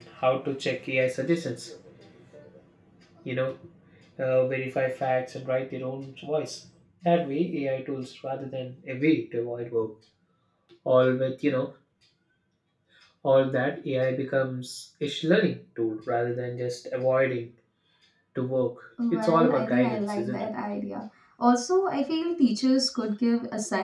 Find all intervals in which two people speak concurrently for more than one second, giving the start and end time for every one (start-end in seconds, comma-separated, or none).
19.1-20.5